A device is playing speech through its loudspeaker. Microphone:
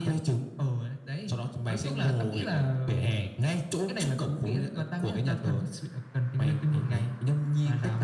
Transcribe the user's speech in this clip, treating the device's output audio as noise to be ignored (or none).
none